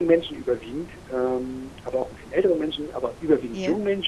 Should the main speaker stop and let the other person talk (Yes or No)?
No